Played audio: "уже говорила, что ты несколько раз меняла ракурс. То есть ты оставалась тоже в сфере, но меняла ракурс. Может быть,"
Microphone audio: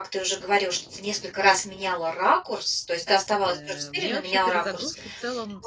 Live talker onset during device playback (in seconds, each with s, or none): 3.4 s